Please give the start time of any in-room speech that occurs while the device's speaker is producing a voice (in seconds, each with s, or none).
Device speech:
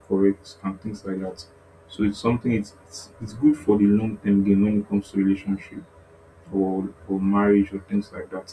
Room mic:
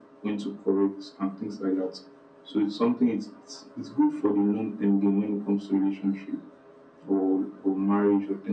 none